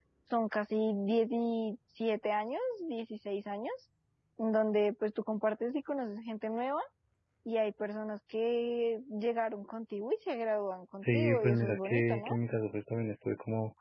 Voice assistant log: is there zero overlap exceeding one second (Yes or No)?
No